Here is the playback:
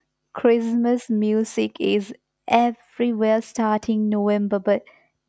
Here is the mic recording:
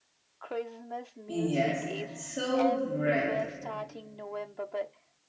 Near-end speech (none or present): present